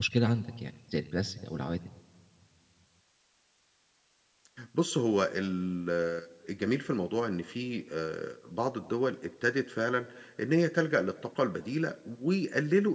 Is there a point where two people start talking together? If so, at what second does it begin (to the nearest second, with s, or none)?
none